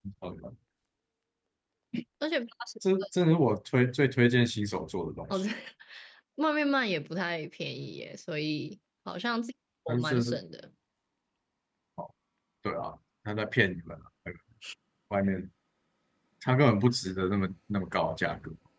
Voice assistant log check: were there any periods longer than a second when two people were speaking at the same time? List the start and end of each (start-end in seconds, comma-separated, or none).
none